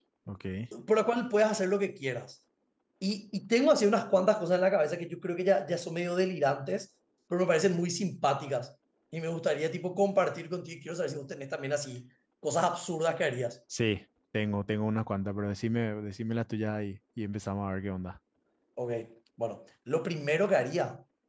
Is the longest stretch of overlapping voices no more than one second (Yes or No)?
Yes